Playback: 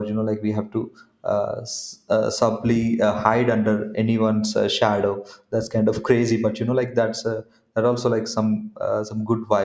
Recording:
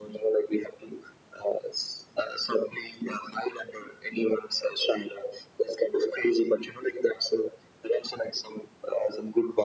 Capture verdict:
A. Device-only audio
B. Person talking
A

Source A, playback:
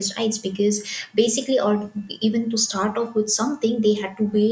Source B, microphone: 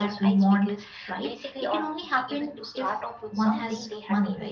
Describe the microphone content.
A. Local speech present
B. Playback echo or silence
A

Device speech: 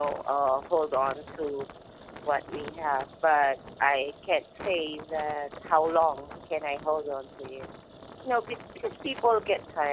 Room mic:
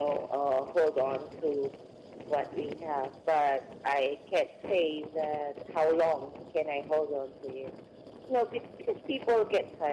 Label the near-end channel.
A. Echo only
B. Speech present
A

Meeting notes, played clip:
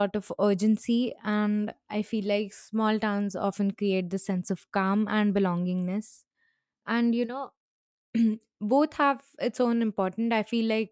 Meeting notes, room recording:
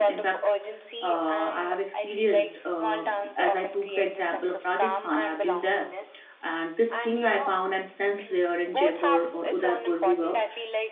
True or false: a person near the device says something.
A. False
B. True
B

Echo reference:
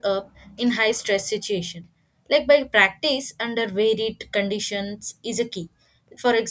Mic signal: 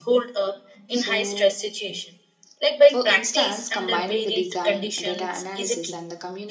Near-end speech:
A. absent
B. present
B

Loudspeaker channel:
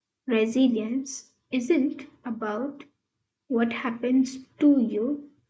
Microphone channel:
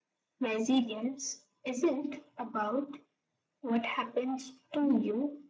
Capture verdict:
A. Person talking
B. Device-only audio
B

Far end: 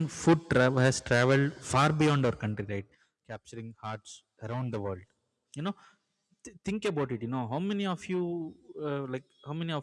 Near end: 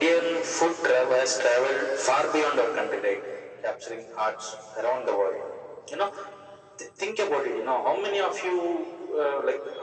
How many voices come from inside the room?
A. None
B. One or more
A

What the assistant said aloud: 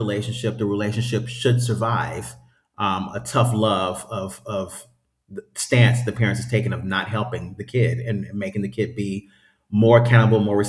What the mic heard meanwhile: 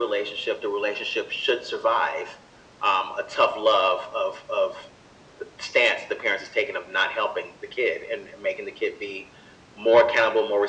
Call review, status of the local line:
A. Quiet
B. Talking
A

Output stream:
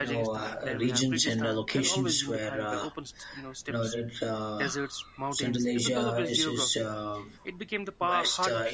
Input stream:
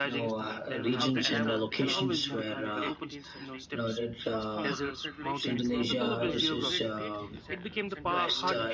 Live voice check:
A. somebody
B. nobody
A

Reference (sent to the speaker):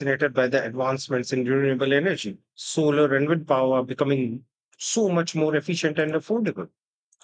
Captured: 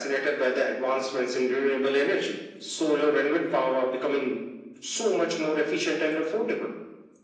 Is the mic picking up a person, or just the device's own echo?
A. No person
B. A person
A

